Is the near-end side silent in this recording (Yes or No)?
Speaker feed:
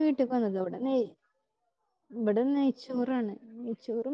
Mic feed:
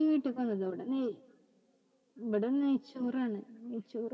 Yes